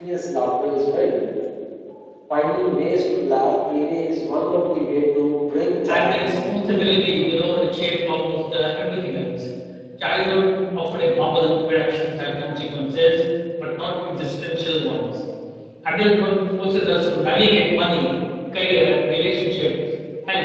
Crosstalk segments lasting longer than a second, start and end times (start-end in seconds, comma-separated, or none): 5.9-7.2